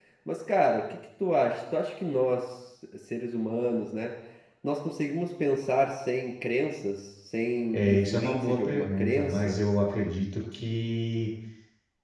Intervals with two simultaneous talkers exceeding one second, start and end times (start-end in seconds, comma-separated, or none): 7.7-9.6